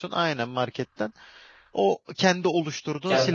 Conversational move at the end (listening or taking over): taking over